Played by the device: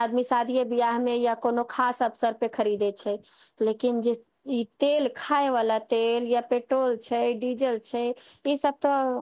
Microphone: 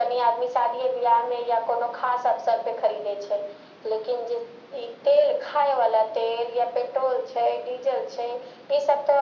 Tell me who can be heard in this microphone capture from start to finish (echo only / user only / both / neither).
echo only